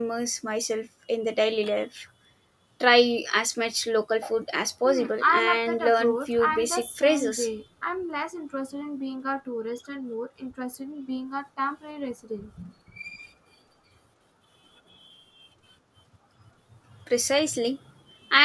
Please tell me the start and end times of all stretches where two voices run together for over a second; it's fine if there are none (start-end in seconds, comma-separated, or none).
4.8-7.5